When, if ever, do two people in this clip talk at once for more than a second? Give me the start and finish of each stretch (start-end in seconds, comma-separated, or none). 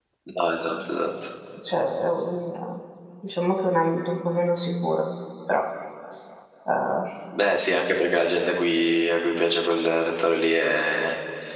none